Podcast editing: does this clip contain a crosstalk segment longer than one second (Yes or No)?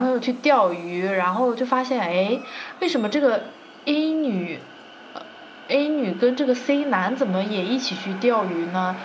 No